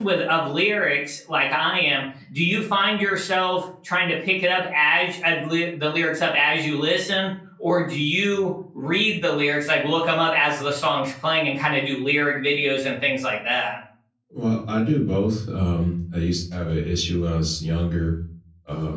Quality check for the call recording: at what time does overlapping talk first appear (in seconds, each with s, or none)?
none